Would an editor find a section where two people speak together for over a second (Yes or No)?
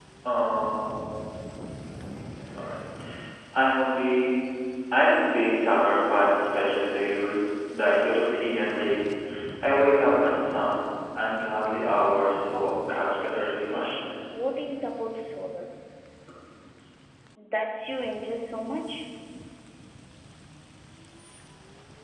Yes